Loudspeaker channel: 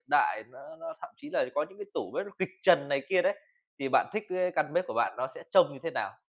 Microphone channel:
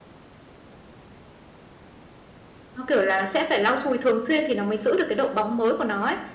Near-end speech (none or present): present